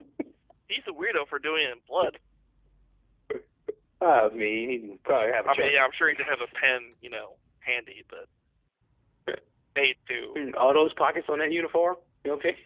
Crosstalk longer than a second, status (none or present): none